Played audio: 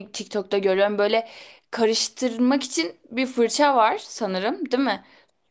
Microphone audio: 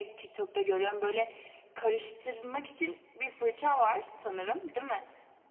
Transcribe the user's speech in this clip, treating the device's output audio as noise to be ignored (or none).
none